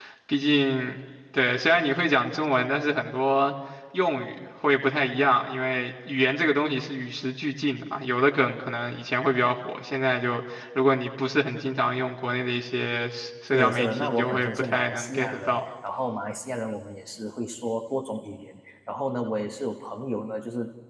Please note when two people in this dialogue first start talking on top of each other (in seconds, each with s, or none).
13.5 s